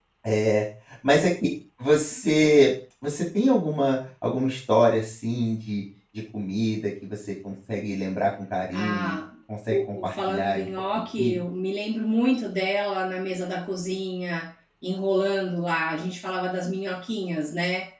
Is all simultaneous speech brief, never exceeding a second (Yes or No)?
No